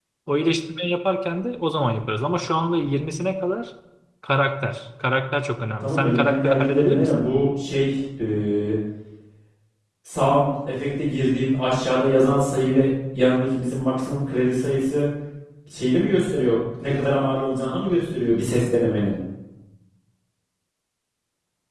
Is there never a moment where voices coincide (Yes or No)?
No